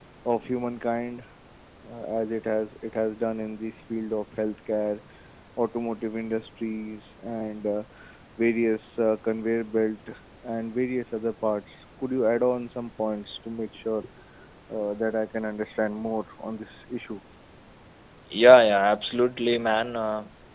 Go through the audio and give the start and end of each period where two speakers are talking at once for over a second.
none

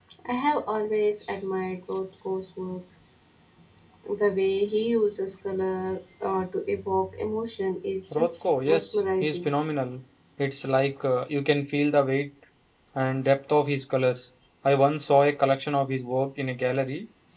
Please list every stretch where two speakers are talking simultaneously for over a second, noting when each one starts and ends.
8.1-9.5

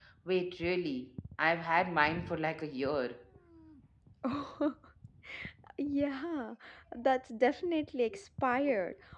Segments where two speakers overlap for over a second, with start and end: none

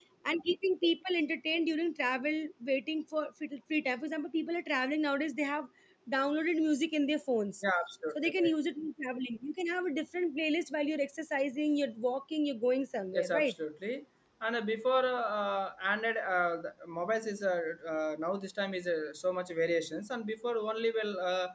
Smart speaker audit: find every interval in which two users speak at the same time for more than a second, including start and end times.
none

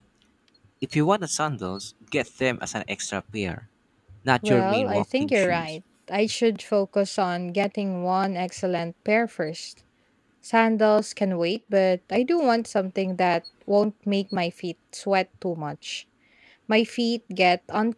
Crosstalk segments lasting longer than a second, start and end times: 4.4-5.8

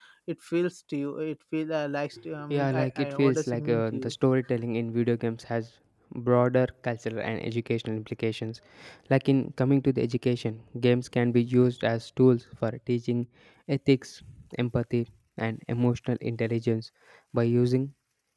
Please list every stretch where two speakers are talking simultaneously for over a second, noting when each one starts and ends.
2.5-4.1

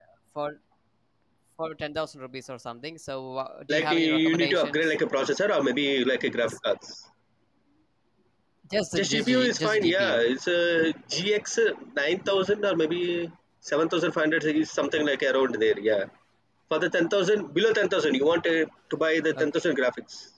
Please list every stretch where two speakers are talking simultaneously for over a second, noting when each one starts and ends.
3.7-4.9, 8.9-10.2

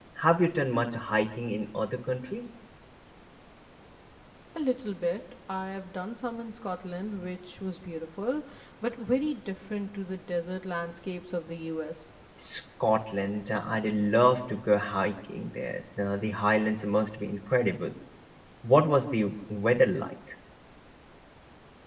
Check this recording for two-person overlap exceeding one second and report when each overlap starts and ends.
none

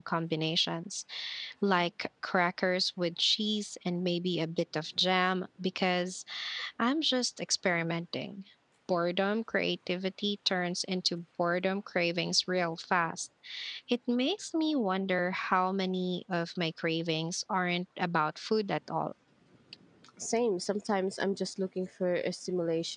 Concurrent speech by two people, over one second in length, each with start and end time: none

